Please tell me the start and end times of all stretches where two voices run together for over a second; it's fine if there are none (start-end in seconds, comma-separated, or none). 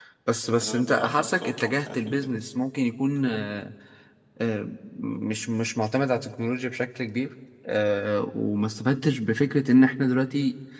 0.6-2.3